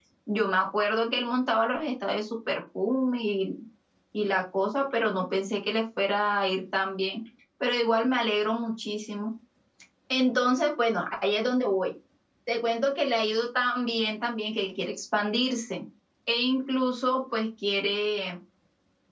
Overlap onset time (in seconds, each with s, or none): none